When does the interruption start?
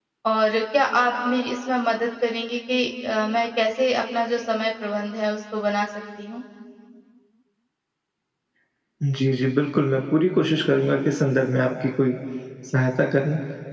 none

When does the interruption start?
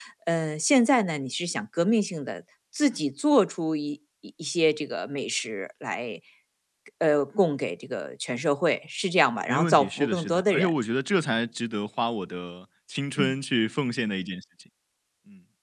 9.5 s

